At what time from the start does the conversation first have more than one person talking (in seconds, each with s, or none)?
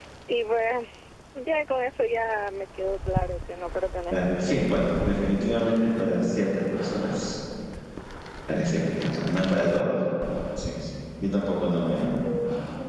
4.1 s